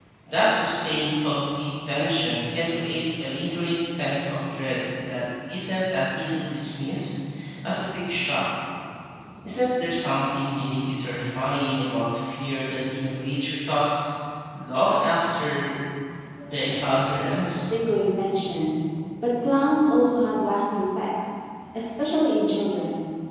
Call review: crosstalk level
present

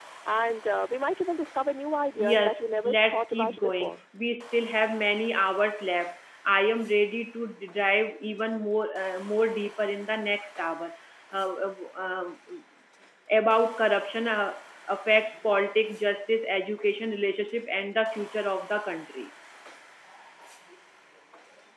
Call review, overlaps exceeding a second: present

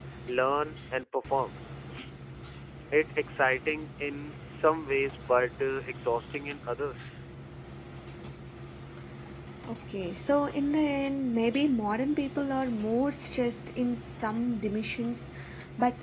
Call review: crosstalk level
none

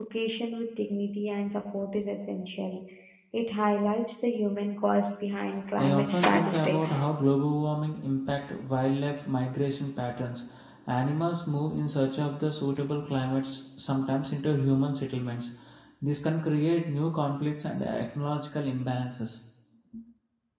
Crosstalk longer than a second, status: present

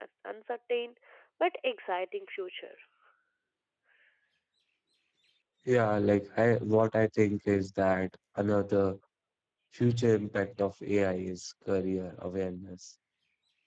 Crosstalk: none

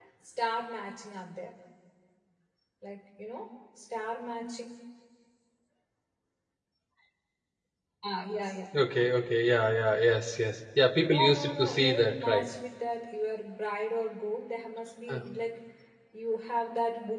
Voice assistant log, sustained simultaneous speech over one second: present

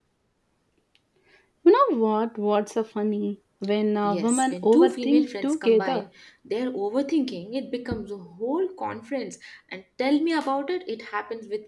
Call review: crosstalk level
present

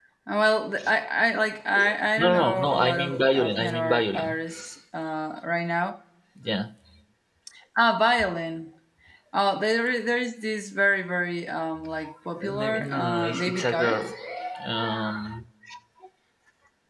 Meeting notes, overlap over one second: present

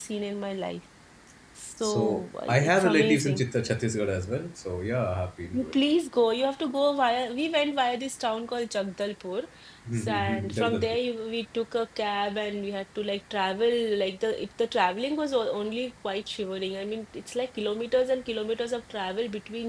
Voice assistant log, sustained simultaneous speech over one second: present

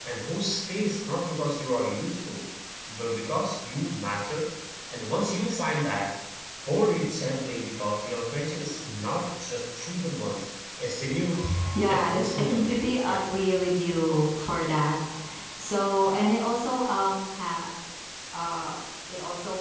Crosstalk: present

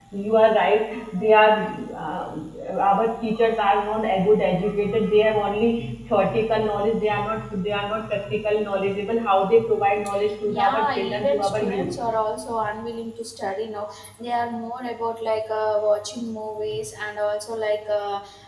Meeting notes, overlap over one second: present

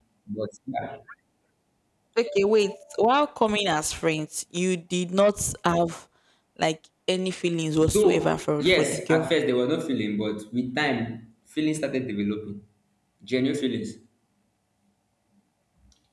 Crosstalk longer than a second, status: present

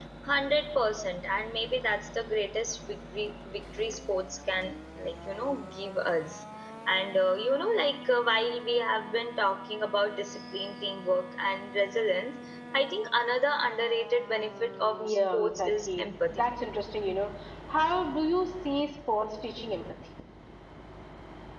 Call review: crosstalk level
present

